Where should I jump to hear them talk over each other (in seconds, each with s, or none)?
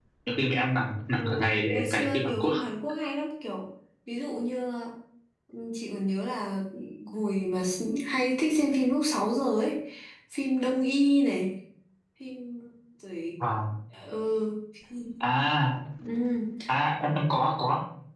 1.1 s